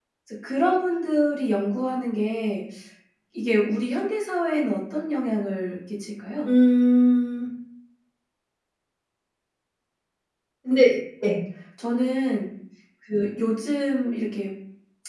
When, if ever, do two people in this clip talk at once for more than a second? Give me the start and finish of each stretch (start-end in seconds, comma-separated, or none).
none